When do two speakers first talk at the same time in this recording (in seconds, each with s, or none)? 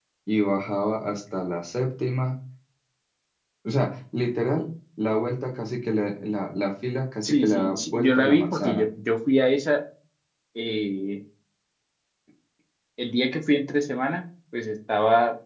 7.2 s